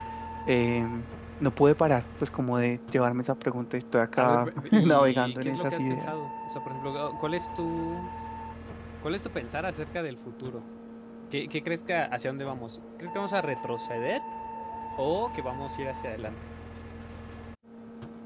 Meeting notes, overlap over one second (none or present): present